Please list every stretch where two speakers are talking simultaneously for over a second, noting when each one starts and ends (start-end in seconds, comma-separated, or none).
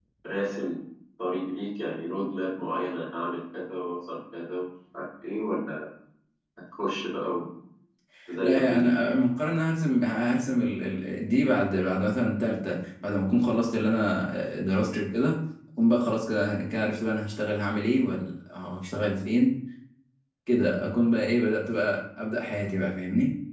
none